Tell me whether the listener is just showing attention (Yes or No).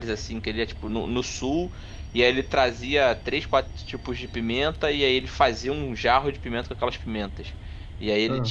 Yes